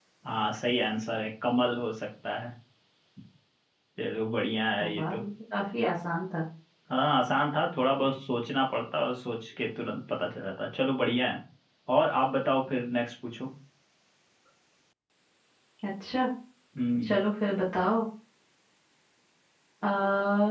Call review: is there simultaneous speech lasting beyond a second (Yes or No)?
No